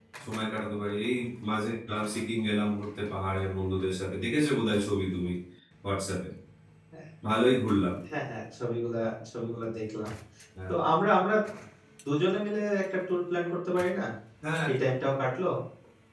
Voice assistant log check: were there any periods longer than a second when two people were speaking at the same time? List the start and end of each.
none

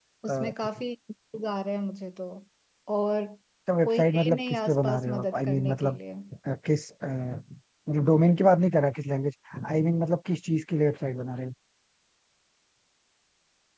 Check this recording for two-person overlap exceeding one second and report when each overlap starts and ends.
3.8-6.0

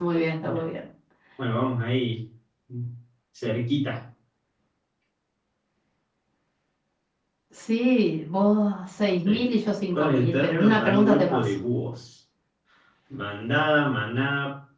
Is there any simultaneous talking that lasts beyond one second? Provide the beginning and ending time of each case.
9.9-11.5

